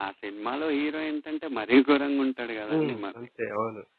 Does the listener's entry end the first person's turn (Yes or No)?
Yes